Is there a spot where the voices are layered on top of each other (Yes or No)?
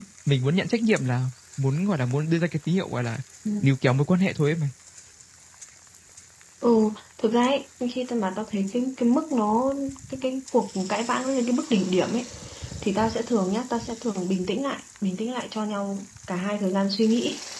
No